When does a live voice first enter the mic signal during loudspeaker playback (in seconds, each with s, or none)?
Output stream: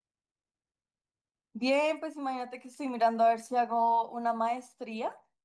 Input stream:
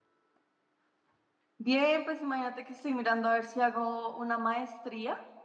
none